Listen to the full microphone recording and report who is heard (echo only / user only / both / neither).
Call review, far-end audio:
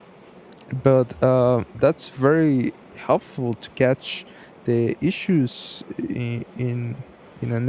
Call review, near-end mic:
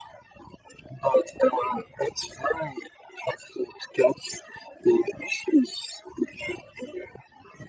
echo only